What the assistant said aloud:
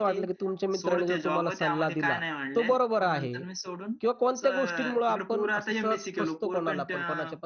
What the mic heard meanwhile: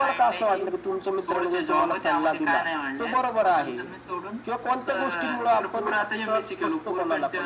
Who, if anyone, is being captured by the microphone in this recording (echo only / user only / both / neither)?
echo only